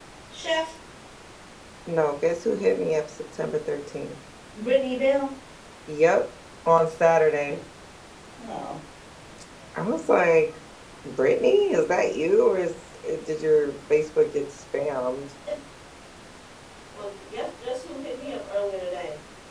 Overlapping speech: No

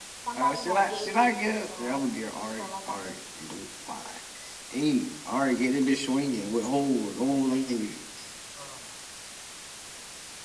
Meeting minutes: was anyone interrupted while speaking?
Yes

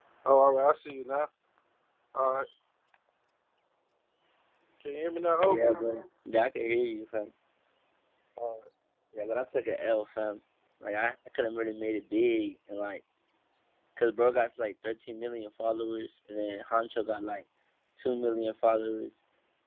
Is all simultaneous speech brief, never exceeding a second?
Yes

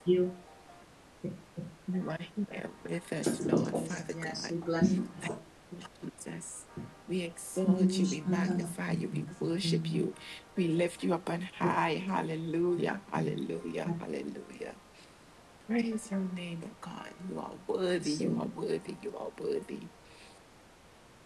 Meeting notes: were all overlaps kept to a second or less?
No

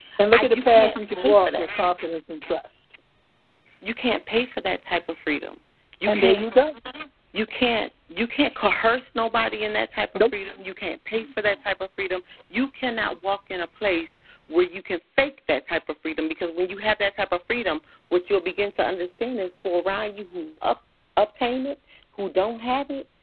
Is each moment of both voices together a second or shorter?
No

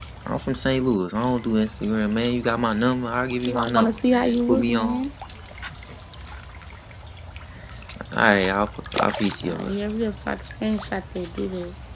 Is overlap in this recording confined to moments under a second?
No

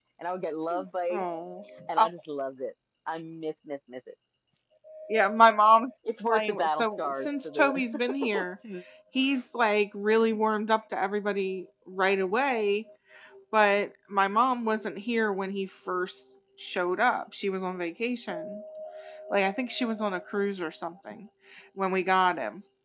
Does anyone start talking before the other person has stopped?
Yes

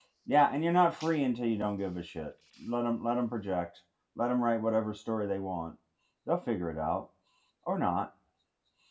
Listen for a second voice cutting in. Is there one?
No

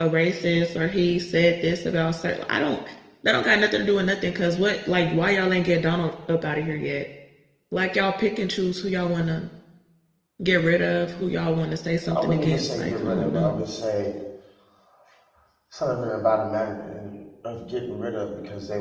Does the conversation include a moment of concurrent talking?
Yes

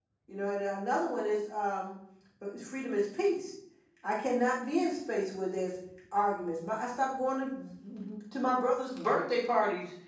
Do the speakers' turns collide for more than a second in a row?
No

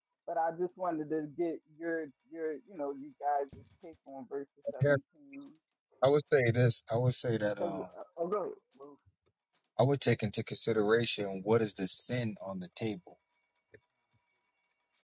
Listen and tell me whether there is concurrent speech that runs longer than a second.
No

